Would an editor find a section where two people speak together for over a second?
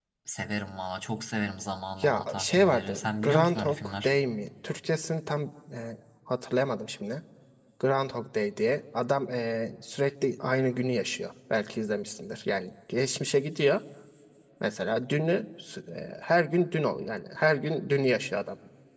Yes, from 2.0 s

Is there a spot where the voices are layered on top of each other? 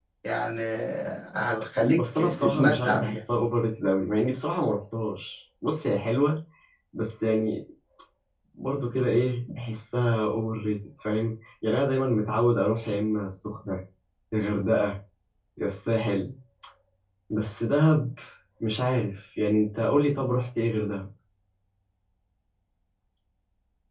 Yes, from 2.0 s

